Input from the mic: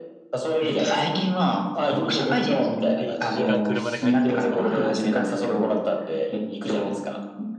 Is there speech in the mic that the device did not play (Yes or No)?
Yes